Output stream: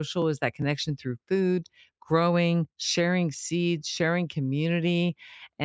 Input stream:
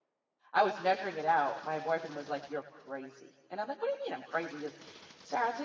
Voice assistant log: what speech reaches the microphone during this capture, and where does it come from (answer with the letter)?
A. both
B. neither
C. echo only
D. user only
D